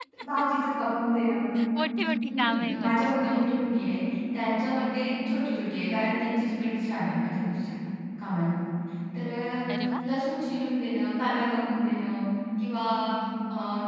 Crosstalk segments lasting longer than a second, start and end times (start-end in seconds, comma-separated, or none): 2.3-3.6